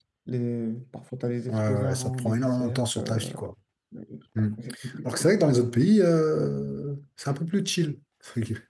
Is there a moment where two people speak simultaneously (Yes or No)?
Yes